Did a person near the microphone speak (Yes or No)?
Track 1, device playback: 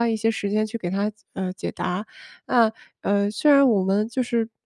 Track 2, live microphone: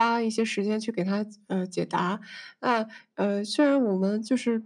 No